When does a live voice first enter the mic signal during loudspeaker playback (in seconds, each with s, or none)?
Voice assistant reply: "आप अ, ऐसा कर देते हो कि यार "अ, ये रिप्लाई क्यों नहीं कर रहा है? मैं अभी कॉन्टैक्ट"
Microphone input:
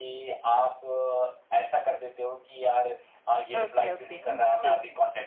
3.6 s